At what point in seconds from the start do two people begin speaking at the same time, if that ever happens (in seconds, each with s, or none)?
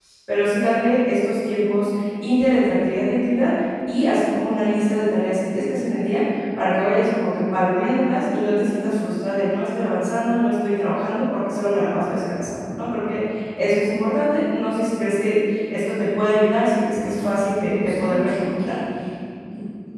17.2 s